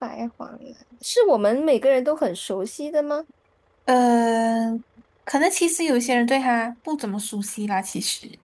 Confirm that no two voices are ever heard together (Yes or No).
Yes